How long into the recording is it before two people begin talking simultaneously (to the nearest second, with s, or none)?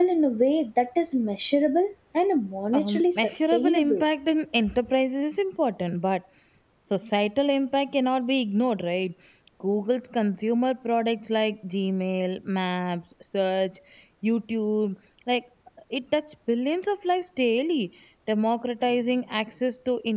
3 s